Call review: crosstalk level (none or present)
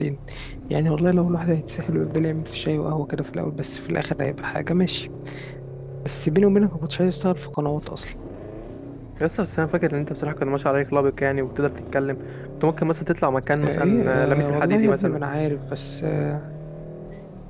present